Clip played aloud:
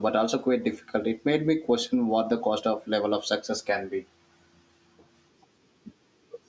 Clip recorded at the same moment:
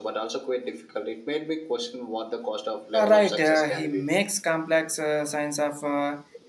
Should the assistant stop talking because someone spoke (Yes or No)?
Yes